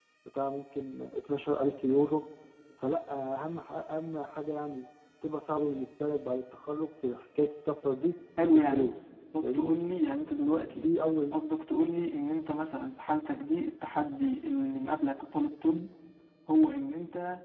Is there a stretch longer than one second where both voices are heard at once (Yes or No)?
No